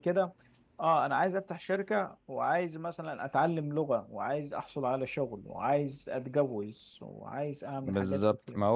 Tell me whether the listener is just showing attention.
No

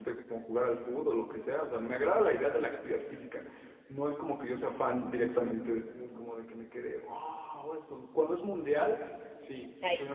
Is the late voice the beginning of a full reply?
No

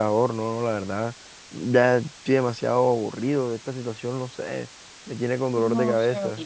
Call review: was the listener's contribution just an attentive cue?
No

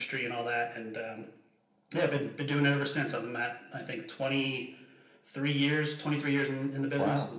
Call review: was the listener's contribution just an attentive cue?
No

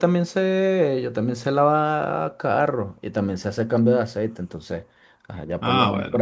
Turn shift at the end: Yes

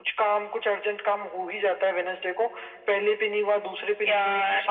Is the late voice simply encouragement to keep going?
Yes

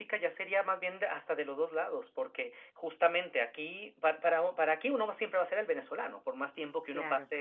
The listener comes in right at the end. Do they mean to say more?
No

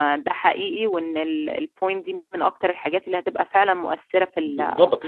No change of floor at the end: No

